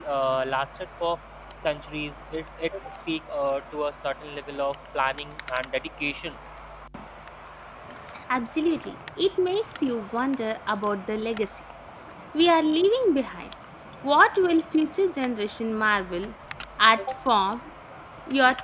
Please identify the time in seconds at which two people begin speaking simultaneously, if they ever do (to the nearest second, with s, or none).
none